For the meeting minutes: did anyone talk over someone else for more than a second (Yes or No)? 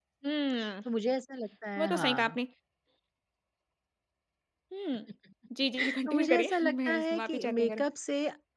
Yes